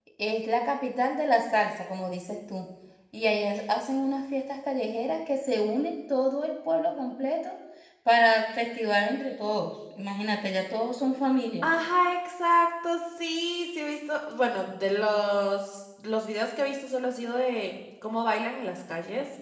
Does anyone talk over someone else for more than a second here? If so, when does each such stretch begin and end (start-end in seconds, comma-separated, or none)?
none